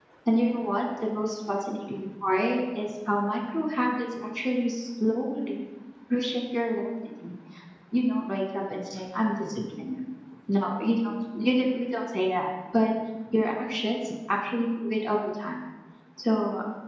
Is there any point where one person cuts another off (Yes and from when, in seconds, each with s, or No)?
No